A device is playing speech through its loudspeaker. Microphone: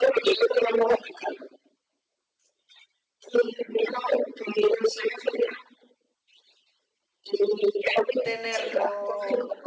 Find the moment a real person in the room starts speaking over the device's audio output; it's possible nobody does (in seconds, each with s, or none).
8.2 s